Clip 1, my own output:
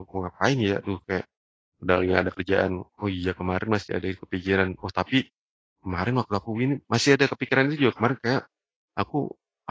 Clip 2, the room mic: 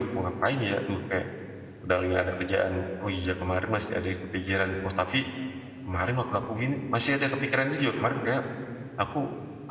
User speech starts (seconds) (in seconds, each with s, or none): none